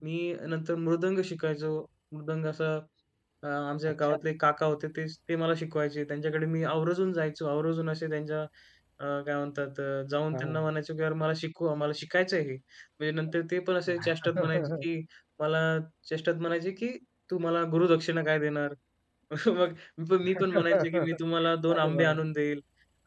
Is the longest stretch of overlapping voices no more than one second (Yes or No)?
No